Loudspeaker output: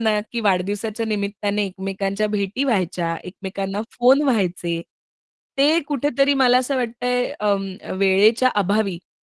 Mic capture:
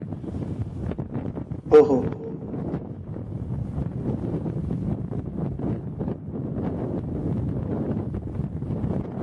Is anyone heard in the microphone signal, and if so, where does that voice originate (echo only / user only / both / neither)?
user only